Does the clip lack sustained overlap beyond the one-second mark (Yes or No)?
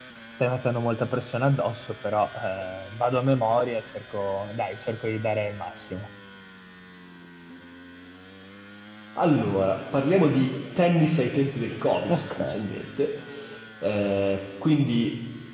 Yes